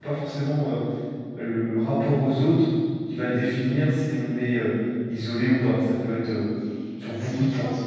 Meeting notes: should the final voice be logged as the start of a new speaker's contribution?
Yes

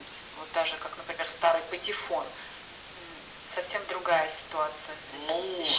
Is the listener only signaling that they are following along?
No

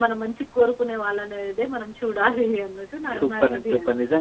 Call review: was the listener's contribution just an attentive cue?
No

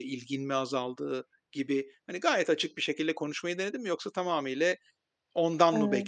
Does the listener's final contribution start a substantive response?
No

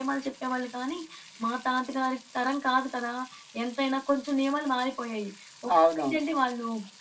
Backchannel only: Yes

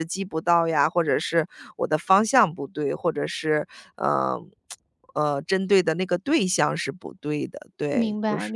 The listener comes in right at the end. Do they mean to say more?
Yes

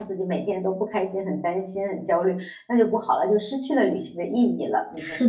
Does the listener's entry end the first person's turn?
Yes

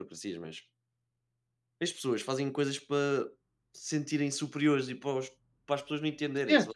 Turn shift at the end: Yes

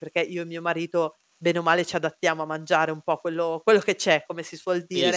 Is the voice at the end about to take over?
Yes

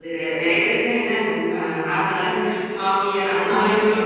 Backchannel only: Yes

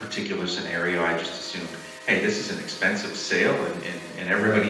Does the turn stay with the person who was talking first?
Yes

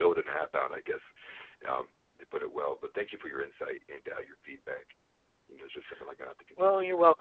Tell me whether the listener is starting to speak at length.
Yes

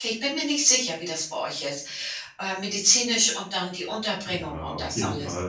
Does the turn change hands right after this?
Yes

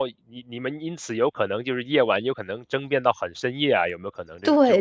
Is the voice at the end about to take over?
Yes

